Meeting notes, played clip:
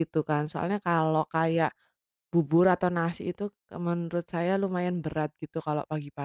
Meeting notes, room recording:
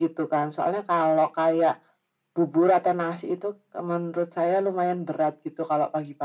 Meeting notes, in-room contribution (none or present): none